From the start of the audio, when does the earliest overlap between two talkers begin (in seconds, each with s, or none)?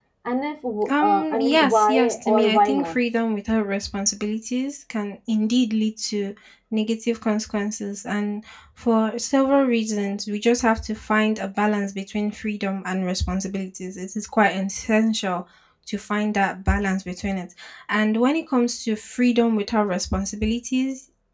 0.9 s